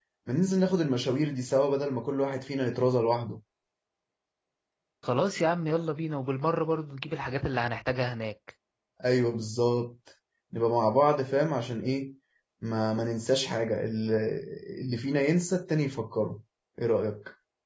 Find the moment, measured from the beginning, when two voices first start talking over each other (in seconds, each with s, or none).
none